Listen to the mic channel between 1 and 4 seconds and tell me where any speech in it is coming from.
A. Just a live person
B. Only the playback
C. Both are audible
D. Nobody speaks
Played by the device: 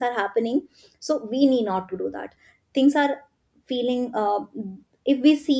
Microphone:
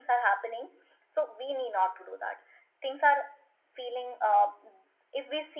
B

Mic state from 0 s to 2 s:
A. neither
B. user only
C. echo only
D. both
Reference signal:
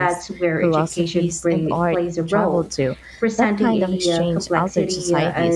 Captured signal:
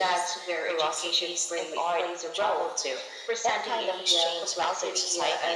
C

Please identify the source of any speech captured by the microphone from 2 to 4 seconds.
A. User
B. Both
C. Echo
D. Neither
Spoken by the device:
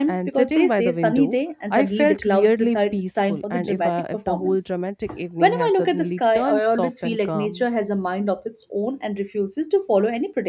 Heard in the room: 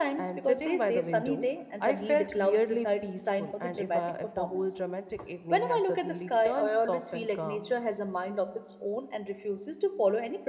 C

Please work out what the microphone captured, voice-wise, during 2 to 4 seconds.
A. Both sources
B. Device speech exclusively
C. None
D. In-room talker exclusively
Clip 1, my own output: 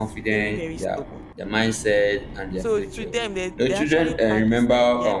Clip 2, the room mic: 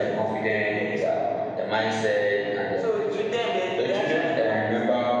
B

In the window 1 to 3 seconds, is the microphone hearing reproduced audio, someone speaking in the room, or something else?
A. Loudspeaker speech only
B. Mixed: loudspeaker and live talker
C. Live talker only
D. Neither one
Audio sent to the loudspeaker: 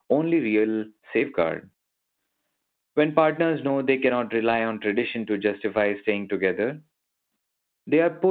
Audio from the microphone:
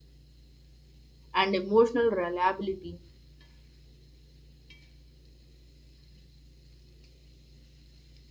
C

